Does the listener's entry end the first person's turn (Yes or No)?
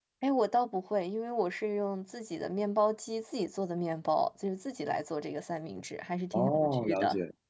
Yes